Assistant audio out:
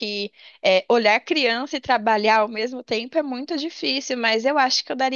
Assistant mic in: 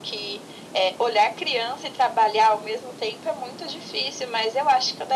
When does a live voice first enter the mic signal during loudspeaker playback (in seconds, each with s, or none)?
none